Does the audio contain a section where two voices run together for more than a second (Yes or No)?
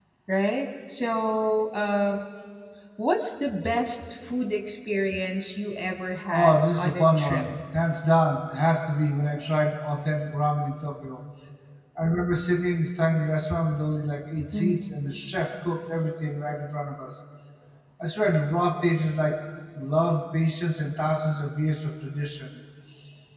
Yes